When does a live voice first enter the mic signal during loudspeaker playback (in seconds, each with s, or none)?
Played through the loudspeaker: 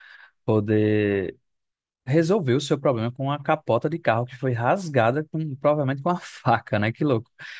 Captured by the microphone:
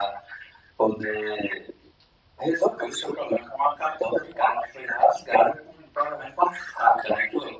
none